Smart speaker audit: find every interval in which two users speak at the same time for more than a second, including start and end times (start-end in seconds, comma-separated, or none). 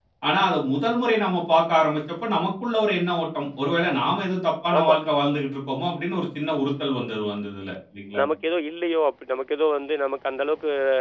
none